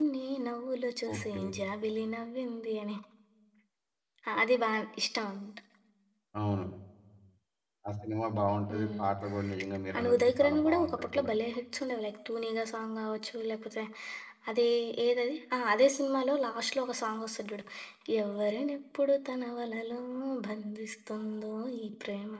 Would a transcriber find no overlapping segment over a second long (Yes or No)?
No